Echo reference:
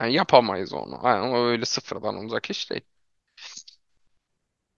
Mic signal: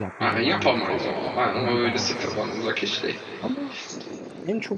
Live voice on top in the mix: No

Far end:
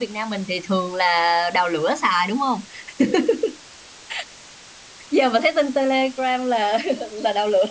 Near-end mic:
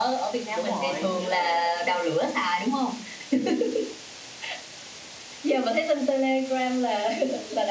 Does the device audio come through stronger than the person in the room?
Yes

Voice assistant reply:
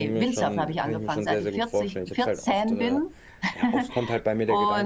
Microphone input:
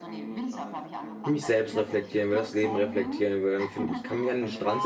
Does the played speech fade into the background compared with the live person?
Yes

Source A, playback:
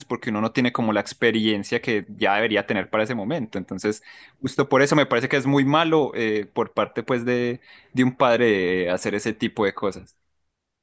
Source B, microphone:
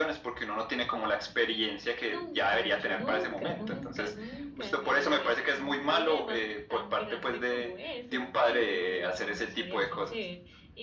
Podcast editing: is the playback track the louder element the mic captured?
Yes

